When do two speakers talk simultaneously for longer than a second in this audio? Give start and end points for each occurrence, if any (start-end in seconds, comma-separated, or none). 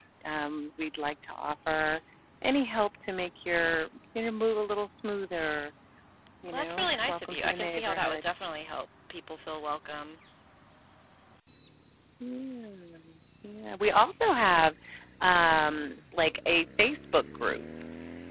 6.5-8.2